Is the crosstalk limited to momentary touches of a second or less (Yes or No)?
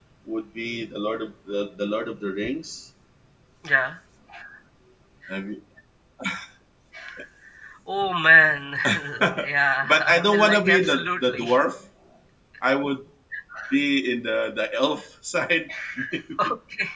No